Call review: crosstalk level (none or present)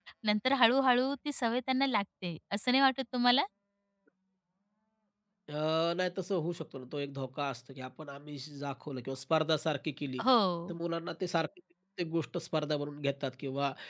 none